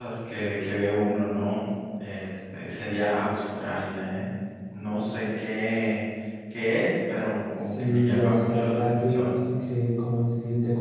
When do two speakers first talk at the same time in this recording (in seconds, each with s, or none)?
7.6 s